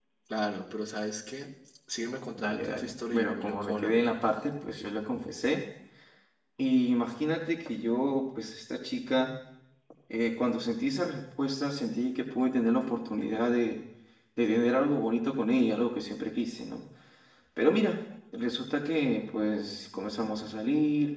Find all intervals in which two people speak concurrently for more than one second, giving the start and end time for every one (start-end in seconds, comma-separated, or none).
2.4-4.1